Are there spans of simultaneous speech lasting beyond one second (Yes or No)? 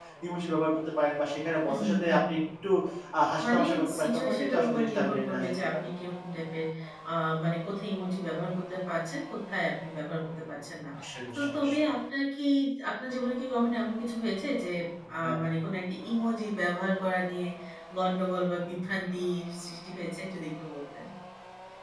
Yes